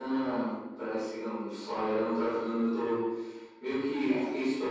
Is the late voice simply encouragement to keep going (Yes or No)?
Yes